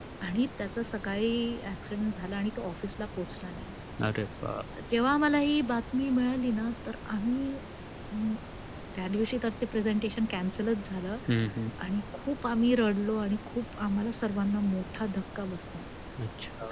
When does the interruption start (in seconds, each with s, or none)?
none